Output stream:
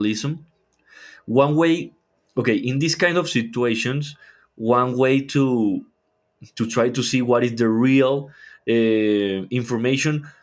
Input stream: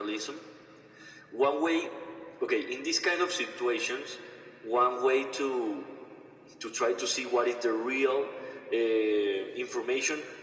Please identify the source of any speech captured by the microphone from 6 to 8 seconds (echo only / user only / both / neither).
echo only